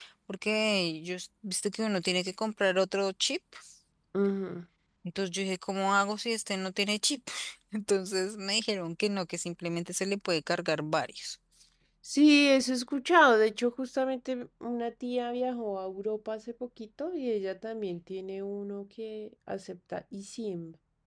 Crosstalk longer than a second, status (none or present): none